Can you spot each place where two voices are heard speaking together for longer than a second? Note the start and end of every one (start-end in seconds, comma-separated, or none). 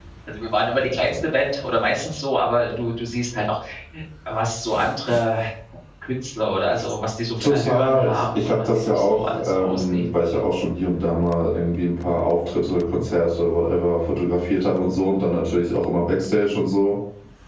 7.4-10.2